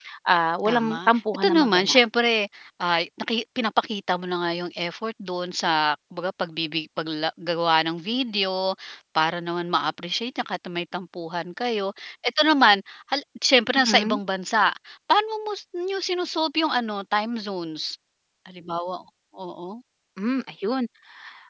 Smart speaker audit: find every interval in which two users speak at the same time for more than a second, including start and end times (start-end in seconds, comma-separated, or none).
0.7-2.0